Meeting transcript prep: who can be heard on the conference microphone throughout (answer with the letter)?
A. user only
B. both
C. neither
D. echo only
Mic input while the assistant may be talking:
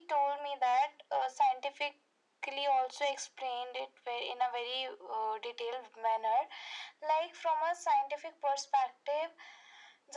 D